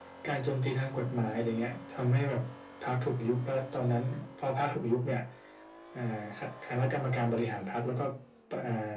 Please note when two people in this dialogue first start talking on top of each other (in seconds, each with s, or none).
none